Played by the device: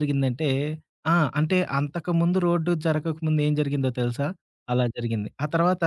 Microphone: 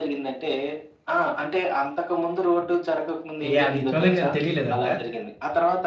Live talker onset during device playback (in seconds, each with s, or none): 3.5 s